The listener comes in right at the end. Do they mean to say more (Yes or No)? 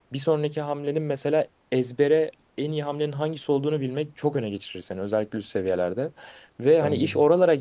No